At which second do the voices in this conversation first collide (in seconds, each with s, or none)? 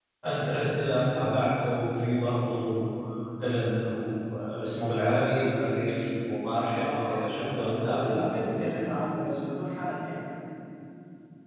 6.7 s